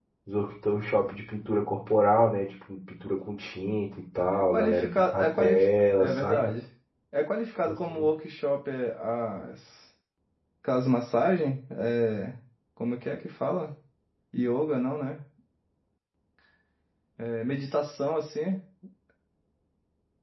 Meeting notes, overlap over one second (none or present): present